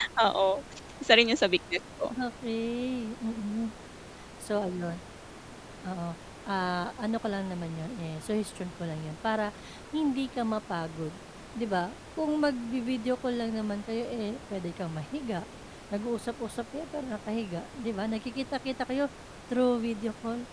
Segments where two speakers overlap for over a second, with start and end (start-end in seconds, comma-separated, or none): none